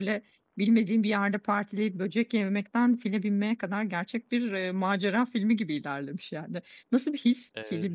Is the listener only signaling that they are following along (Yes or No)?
Yes